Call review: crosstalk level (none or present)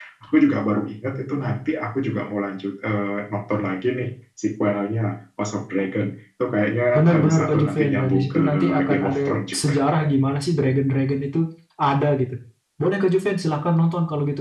present